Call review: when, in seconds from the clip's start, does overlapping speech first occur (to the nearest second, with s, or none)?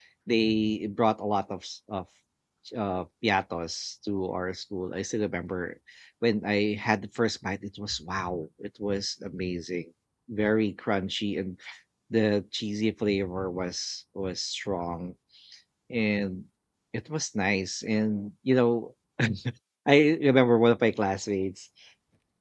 none